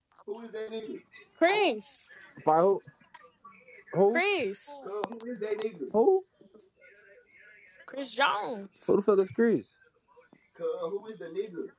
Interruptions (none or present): none